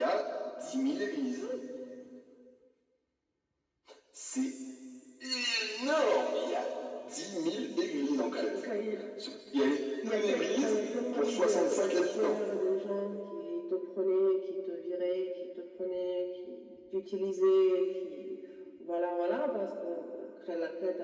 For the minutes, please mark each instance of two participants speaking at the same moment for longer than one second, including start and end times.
10.0-12.4

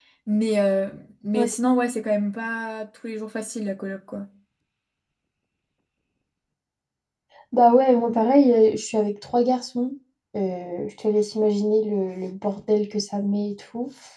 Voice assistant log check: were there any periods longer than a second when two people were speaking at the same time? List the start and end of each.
none

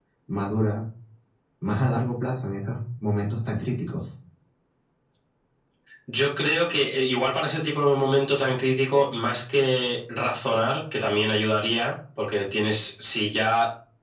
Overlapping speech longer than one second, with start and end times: none

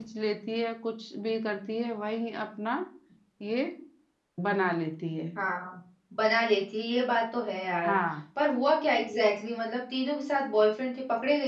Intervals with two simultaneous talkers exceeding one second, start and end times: none

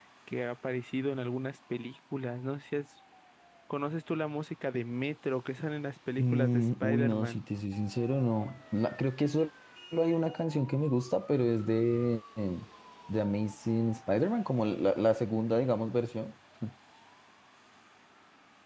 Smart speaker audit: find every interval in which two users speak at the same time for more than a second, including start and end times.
6.2-7.5

